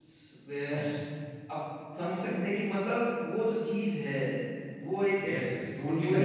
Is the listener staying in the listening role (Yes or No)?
No